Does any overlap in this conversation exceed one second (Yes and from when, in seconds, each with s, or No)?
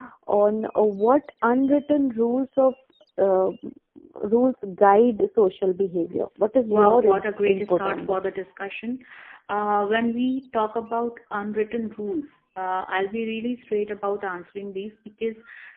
Yes, from 6.7 s